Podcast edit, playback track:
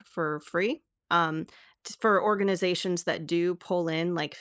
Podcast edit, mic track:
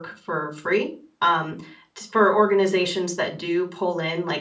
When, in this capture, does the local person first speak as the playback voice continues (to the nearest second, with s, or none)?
none